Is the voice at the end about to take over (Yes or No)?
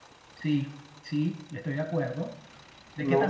Yes